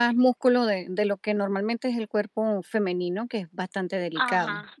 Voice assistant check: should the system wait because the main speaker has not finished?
No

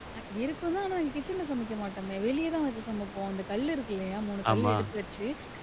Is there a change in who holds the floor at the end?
No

